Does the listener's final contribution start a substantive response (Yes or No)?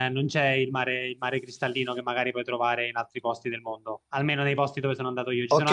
Yes